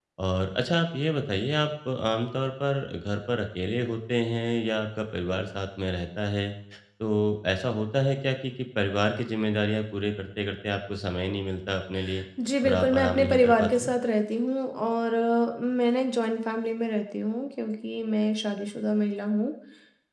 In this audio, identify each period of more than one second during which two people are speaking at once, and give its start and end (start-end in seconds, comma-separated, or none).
12.6-13.9